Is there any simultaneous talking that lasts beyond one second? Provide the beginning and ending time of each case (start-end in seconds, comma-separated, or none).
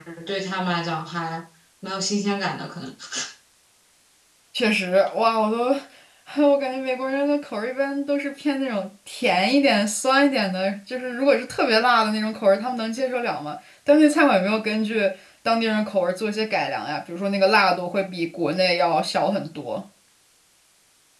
none